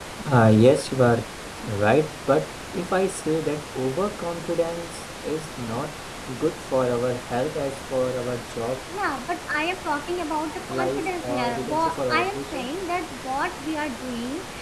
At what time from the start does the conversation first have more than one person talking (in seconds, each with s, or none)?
10.7 s